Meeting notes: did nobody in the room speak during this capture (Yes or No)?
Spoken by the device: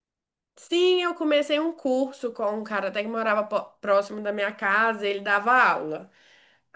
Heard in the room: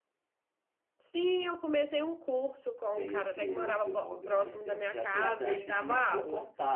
No